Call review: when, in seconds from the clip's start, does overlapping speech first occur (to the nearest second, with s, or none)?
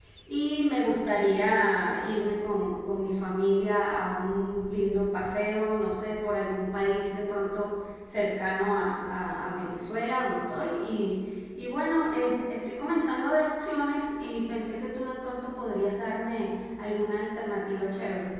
none